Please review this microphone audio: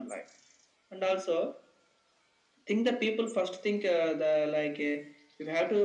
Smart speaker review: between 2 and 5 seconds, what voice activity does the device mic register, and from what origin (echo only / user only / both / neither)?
echo only